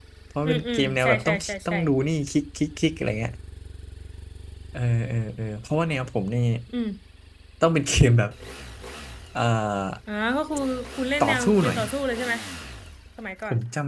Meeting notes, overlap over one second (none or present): present